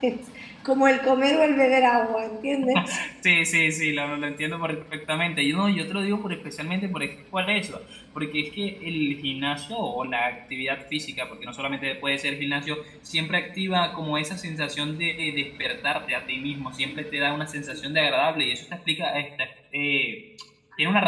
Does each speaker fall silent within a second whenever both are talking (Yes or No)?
Yes